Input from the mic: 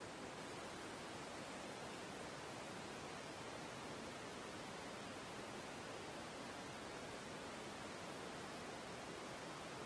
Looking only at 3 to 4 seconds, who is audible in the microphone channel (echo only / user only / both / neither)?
neither